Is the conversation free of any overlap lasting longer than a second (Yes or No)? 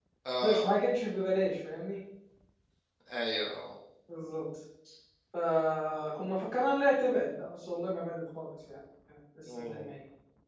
Yes